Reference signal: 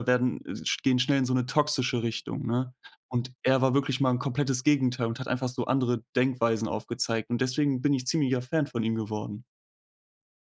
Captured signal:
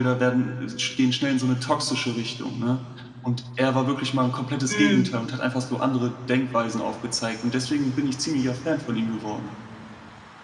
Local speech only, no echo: Mhm.

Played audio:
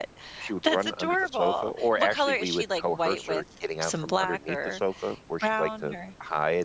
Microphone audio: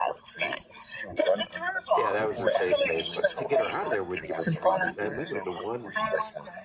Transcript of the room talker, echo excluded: Yeah, that was her safe space, but to get her out of there, we'd give her treats, and I remember the one

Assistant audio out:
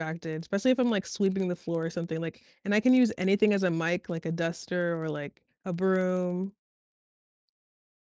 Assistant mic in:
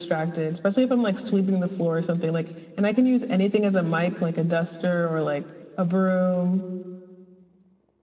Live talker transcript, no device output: none

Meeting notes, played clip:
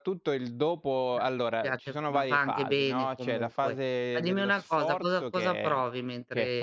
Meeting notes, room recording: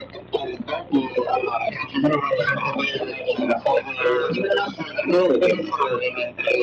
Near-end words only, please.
Ah.

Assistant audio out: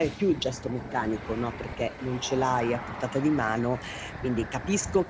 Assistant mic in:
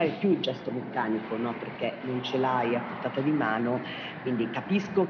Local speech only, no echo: none

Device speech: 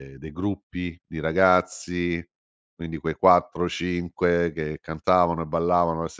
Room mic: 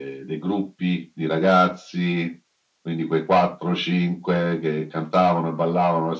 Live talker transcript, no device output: none

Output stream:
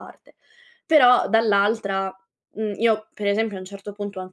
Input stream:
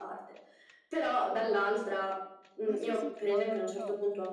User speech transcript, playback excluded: Ah sì, sì, no, no, no, no

